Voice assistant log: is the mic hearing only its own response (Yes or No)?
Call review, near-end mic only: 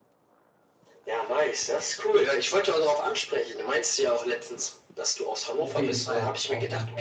No